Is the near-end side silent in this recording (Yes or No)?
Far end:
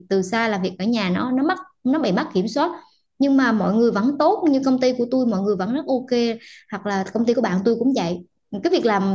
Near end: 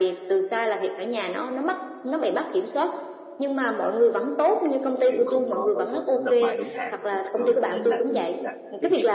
No